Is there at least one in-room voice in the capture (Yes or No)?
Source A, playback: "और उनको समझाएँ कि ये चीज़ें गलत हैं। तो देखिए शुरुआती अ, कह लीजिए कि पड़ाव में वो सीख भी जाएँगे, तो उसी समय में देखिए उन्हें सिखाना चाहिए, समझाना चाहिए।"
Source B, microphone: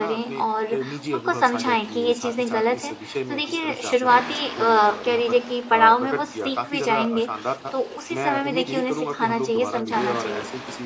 Yes